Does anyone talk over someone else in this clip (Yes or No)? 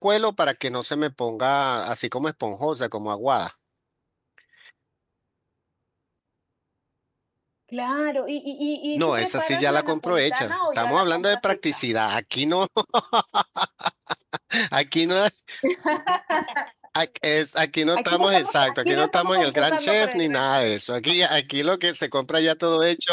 Yes